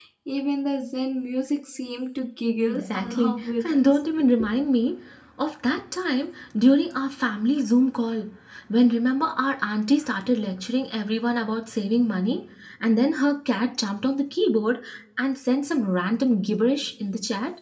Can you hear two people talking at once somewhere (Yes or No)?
Yes